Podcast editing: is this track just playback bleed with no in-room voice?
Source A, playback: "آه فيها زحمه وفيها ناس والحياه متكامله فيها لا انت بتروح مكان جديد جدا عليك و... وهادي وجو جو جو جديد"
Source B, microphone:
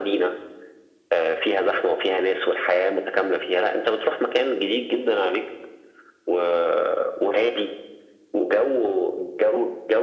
Yes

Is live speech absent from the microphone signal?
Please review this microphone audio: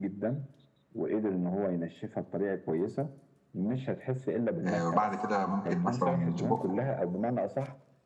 No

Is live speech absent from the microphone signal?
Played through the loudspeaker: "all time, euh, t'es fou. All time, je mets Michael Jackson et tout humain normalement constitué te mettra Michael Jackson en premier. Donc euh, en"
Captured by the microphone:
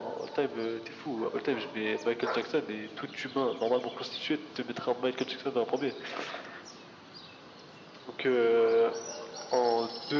Yes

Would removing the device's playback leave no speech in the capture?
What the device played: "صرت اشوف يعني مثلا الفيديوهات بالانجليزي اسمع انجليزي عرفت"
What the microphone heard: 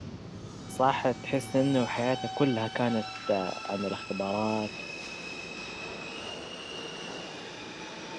No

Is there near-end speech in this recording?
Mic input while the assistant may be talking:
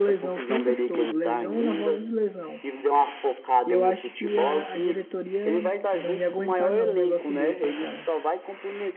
Yes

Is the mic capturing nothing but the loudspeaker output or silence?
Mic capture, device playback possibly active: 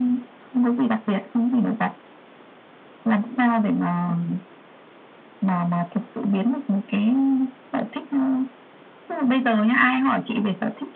Yes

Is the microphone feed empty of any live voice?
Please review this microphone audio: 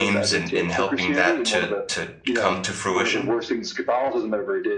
No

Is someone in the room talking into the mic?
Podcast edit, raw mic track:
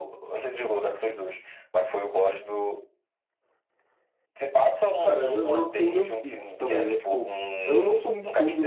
Yes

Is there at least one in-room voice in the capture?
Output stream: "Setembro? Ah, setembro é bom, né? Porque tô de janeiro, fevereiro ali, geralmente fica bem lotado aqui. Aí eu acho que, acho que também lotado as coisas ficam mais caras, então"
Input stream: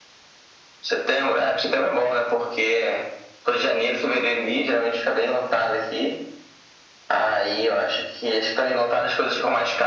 No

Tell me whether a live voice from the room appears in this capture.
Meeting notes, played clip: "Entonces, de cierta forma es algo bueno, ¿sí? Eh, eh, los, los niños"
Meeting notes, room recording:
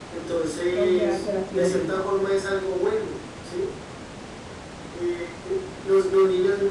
Yes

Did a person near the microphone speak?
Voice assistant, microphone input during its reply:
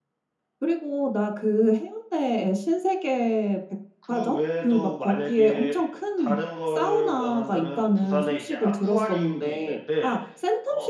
Yes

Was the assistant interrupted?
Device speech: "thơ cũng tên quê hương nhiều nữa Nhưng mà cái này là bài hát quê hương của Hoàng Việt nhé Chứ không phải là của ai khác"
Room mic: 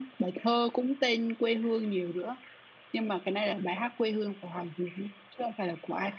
No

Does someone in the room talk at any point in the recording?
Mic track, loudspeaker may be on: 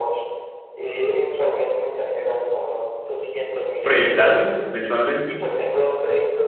Yes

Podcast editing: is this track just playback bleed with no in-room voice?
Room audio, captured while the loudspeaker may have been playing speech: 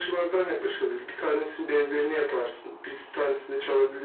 Yes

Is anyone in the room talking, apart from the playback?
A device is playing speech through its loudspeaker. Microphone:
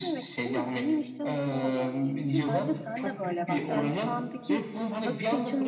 Yes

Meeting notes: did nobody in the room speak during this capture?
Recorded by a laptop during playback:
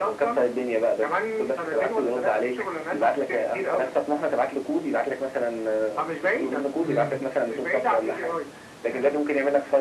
No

